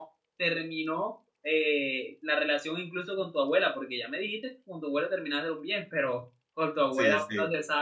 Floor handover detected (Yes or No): No